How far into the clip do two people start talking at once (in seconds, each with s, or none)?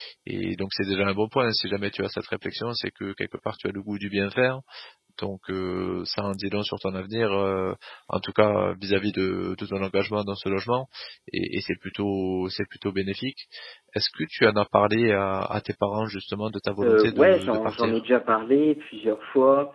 16.8 s